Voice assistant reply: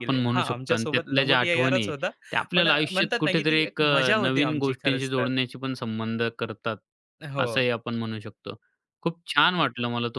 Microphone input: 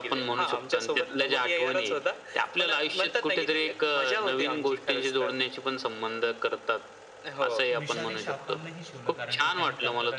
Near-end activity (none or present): present